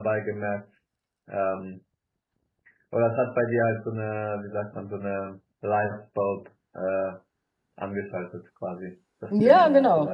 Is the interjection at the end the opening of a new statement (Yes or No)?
Yes